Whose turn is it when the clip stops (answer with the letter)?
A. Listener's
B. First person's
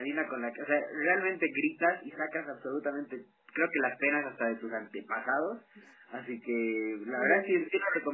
B